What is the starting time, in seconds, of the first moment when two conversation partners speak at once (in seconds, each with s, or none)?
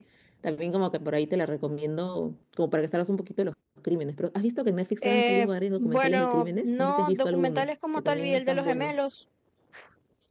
5.0 s